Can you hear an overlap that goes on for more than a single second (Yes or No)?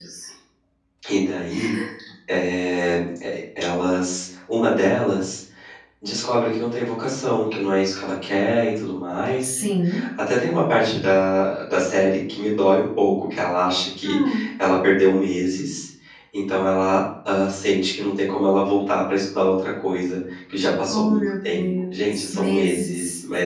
Yes